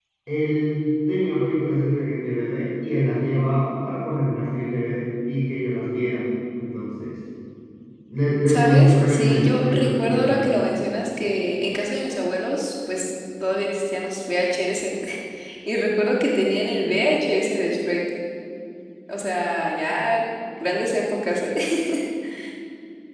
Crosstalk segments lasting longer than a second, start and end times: 8.5-10.5

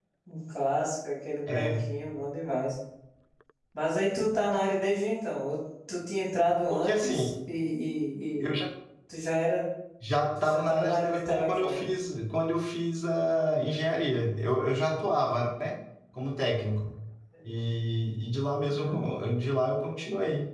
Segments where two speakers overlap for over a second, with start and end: 10.4-11.8

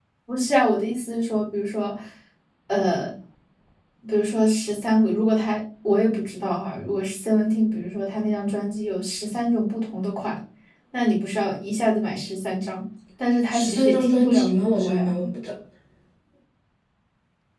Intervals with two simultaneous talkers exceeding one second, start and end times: 13.5-15.1

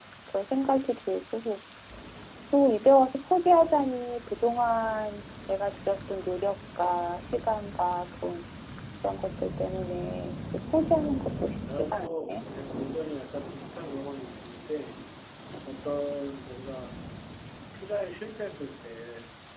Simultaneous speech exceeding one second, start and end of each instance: 11.0-12.4

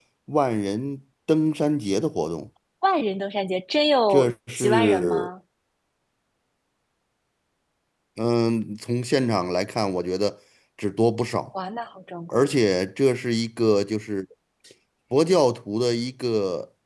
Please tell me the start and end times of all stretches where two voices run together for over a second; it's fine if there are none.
4.1-5.3

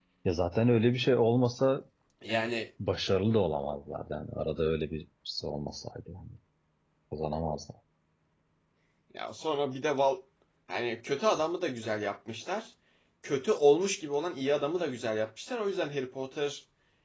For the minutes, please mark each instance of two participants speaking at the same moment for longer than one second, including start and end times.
none

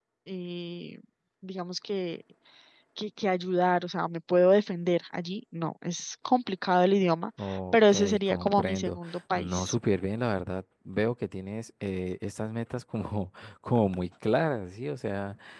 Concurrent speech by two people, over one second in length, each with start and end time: 7.7-9.8

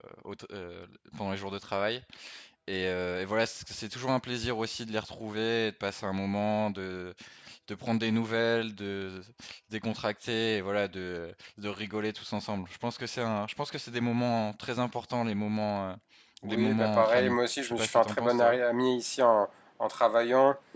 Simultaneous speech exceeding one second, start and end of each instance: 16.4-18.6

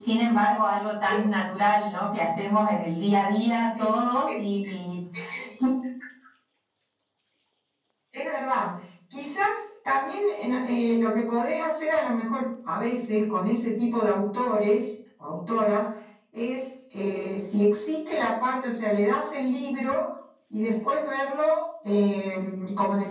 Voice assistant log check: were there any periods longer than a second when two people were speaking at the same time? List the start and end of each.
none

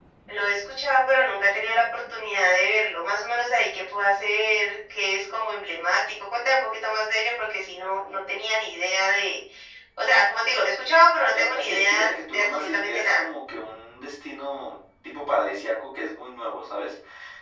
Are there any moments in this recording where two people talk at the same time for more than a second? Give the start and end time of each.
11.3-13.2

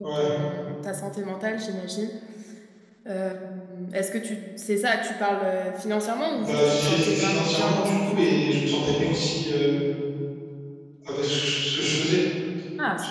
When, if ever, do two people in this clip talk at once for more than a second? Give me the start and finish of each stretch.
6.3-8.4

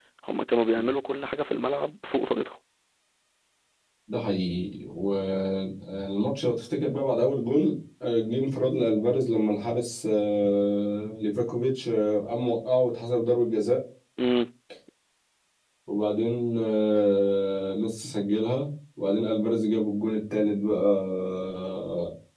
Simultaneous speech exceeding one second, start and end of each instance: none

